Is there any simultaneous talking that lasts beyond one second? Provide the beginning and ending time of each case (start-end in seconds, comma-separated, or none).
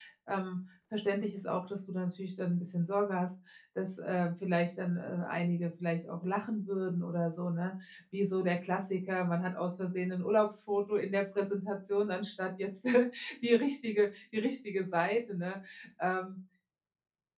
none